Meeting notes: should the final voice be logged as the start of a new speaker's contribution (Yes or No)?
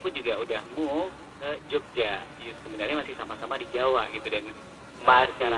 No